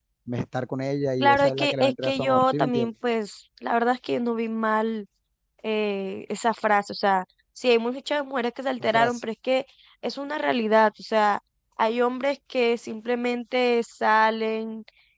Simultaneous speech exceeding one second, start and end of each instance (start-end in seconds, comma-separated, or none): 1.2-2.9